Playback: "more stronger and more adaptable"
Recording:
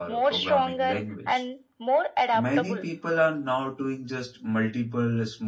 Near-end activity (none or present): present